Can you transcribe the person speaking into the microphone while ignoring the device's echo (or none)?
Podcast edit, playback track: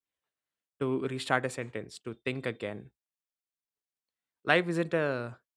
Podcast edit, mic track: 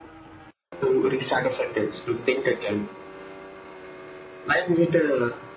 none